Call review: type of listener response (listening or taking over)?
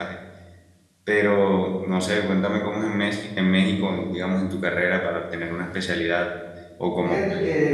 taking over